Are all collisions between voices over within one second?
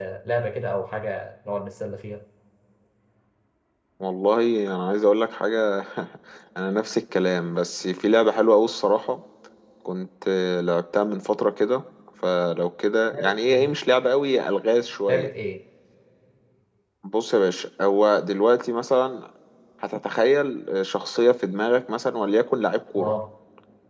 Yes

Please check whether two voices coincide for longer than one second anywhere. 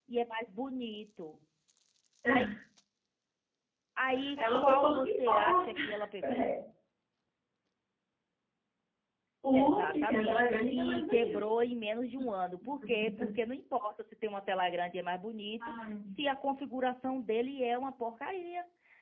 Yes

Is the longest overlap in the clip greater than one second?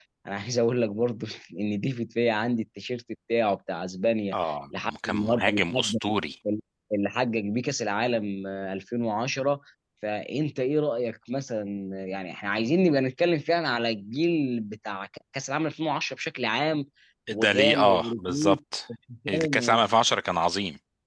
Yes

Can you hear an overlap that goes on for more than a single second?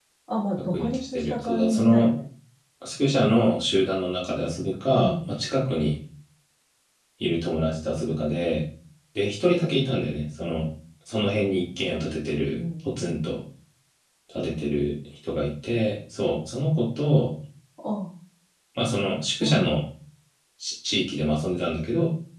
Yes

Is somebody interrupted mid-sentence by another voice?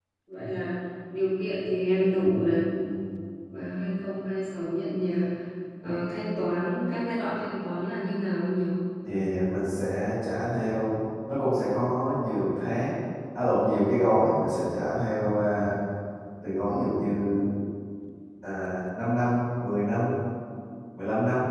No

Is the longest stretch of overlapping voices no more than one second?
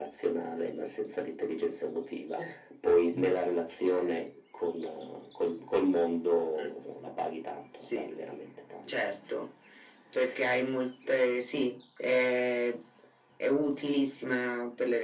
Yes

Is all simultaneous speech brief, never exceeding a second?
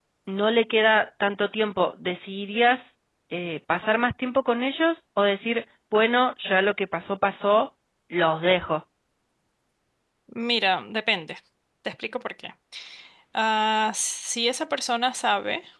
Yes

